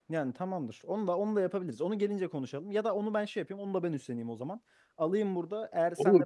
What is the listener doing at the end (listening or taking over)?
taking over